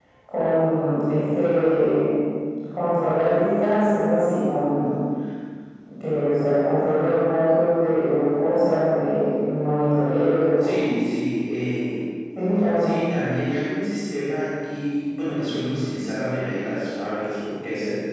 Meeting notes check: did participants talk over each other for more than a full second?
No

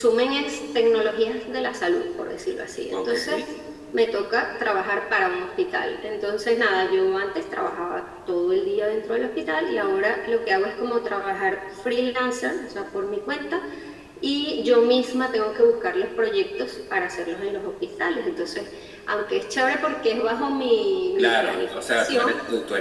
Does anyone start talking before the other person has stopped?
Yes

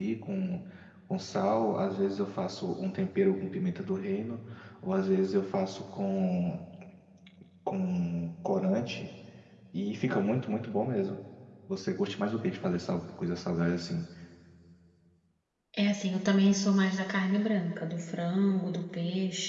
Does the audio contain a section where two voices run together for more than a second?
No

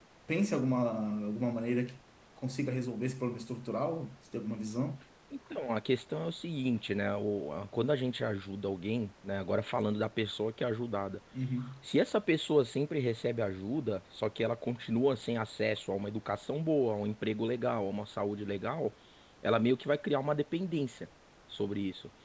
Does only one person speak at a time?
Yes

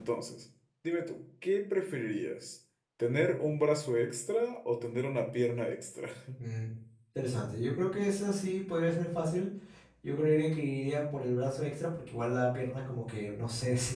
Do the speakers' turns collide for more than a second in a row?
No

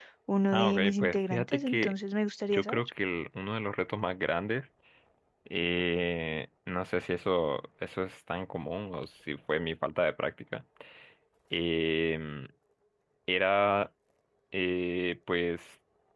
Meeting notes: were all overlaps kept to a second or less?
No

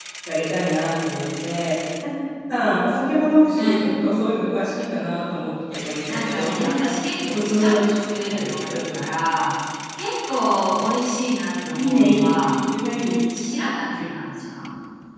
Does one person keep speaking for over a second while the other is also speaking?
Yes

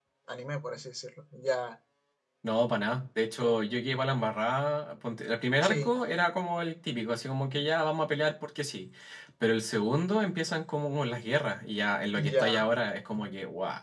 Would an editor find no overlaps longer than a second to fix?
Yes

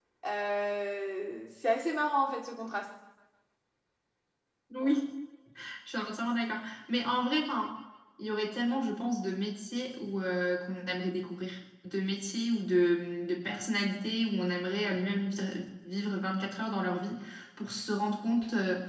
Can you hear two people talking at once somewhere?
No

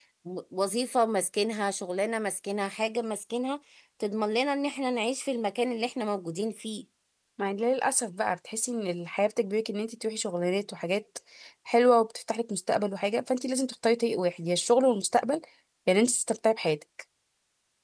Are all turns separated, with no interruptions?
Yes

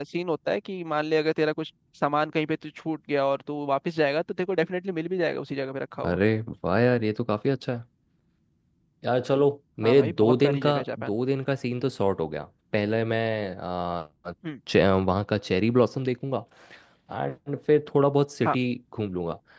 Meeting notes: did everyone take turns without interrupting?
No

